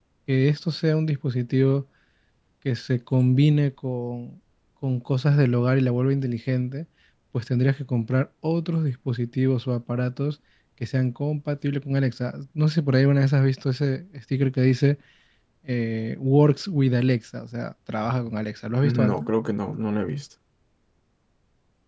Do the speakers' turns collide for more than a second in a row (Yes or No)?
No